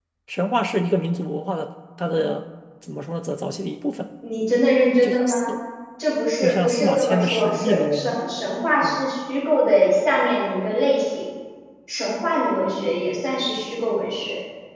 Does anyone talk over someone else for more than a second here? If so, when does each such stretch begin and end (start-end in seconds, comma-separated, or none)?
6.4-8.2